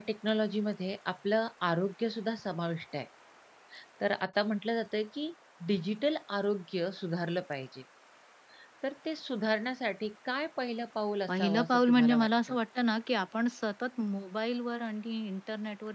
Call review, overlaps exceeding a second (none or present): present